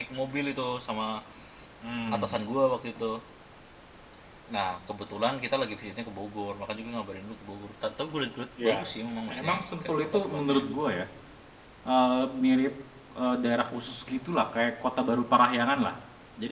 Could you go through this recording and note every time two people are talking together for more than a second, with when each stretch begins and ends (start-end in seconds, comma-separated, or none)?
9.3-10.6